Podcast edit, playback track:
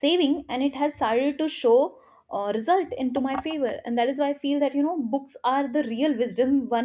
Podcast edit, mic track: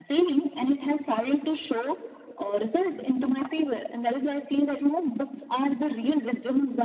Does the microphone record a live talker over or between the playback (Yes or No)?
No